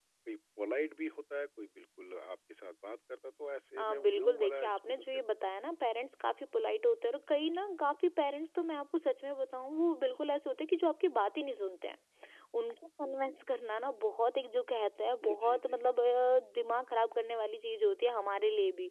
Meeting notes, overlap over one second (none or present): present